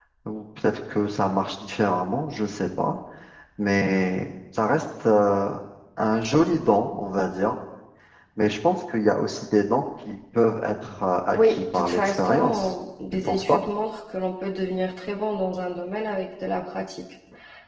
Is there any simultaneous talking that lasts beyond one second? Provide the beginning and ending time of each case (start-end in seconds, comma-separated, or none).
11.3-12.7